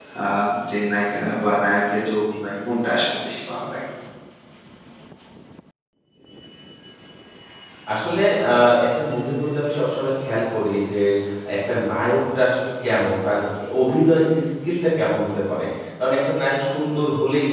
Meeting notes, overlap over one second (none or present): none